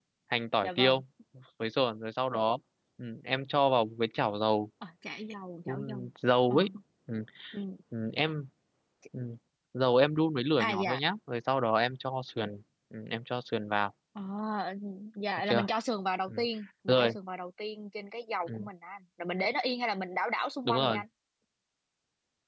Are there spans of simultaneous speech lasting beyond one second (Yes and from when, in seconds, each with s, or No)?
No